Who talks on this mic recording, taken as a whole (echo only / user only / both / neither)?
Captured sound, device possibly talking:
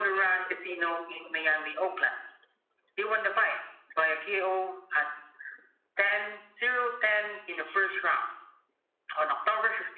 echo only